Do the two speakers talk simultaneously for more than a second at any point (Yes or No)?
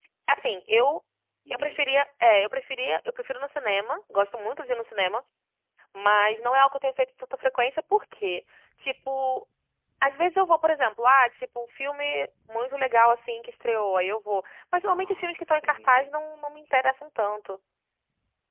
Yes